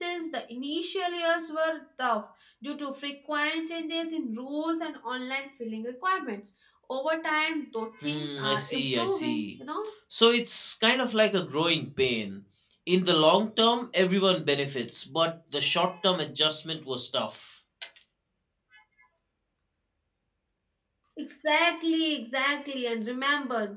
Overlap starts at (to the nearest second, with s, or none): 8 s